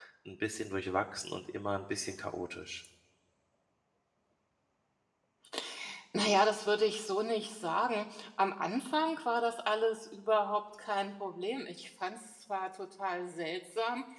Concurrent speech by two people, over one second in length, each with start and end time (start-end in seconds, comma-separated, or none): none